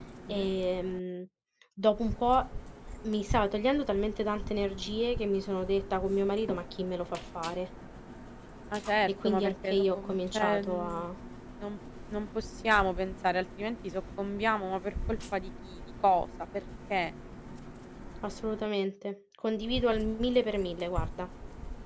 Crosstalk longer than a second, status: present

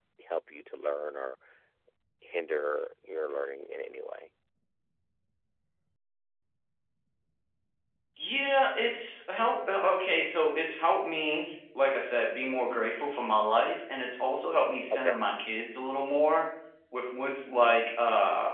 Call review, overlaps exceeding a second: none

